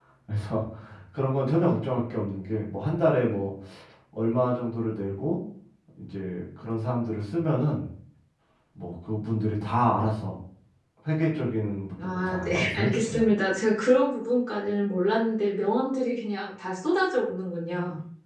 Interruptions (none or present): present